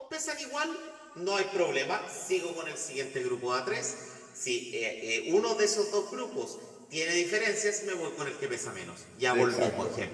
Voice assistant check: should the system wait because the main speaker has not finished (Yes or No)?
No